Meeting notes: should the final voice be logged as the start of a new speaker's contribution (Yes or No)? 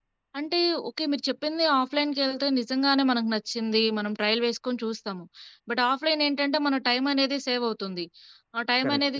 No